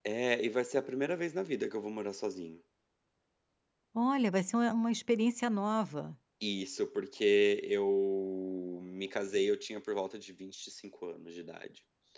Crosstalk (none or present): none